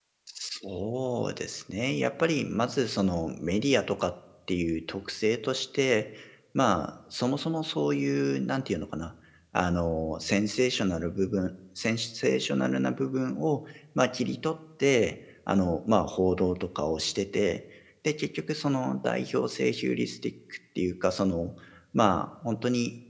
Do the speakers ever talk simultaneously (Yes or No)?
No